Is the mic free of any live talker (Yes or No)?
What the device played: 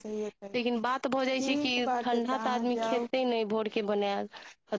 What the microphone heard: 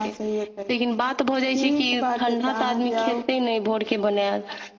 Yes